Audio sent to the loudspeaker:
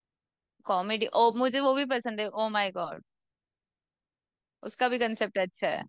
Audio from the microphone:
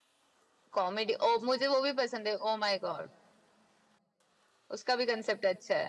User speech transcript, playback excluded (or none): none